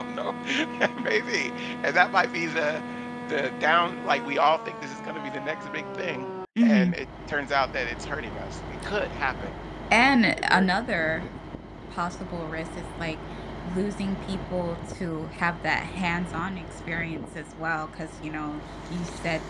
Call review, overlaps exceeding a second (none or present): none